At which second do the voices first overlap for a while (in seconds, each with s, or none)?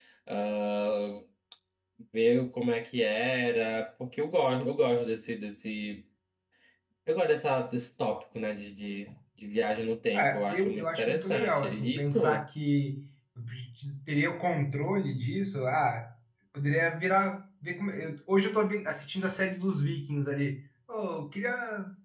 10.1 s